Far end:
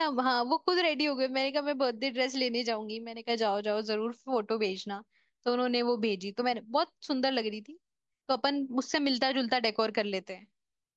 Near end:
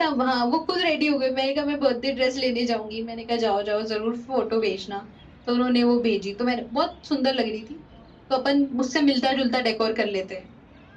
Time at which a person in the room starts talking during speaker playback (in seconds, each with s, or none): none